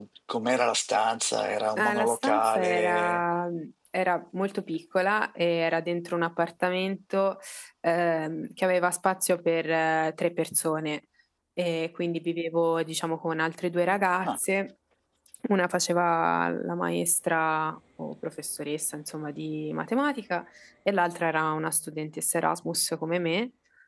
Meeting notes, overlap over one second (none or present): present